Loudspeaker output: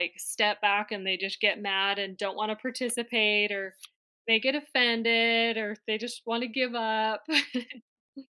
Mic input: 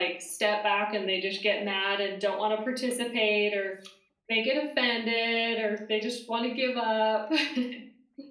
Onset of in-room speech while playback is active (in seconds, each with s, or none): none